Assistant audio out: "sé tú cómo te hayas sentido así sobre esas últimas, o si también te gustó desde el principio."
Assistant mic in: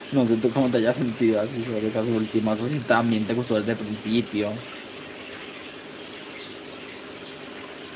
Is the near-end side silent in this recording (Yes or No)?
Yes